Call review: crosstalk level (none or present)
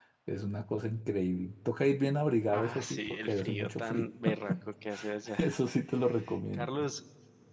present